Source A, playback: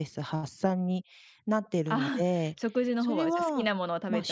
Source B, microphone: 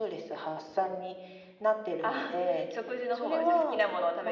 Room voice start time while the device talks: none

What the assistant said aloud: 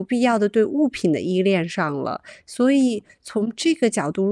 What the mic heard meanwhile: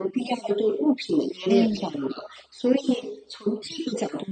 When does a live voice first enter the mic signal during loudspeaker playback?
1.4 s

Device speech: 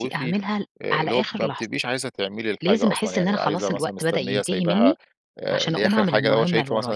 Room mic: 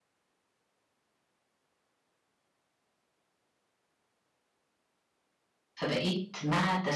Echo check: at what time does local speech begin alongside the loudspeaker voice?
5.8 s

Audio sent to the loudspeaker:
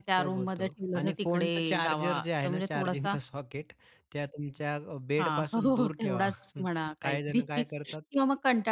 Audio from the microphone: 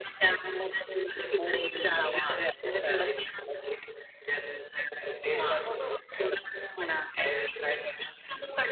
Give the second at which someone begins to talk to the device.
none

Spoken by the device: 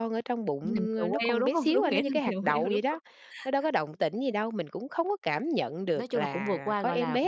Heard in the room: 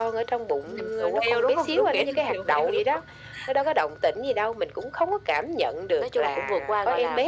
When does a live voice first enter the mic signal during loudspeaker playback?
none

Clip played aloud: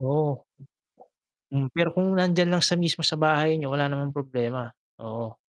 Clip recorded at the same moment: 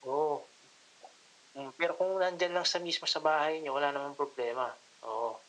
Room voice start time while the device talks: none

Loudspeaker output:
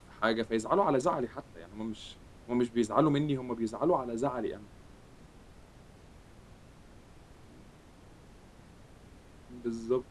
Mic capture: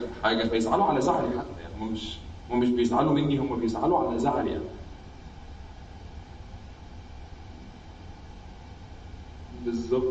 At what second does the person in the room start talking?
none

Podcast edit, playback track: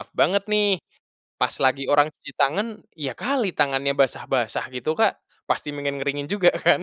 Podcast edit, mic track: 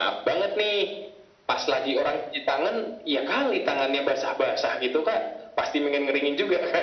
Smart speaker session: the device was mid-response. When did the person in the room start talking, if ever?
none

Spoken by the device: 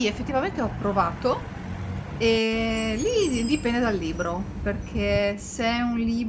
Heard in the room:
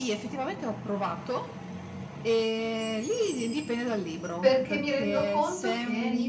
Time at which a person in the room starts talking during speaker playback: 4.4 s

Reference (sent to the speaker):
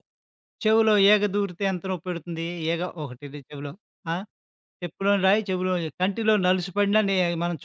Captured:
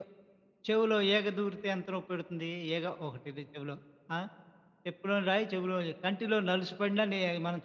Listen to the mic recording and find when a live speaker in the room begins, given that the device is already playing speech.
none

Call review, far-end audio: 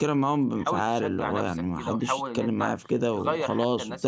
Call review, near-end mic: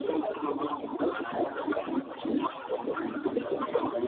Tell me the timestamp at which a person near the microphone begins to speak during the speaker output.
none

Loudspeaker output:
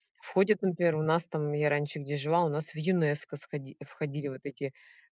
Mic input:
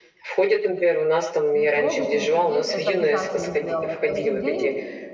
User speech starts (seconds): 1.5 s

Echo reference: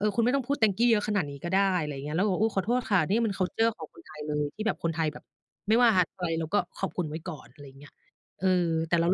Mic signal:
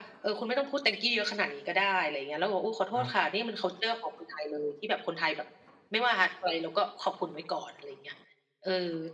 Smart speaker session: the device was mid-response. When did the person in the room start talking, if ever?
2.7 s

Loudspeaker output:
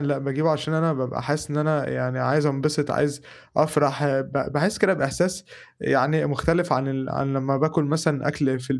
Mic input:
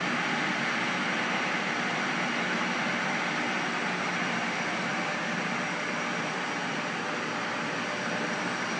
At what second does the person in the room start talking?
none

